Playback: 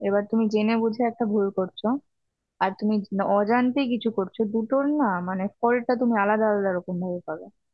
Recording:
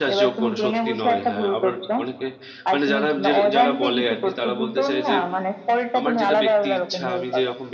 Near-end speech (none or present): present